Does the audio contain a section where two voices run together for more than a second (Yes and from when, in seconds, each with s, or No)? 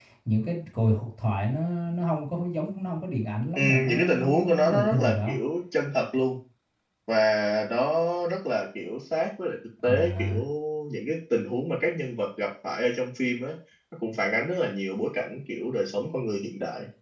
Yes, from 3.5 s